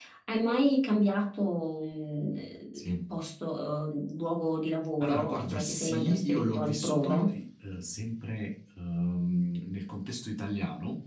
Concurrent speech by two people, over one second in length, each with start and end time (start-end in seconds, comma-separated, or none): 5.0-7.3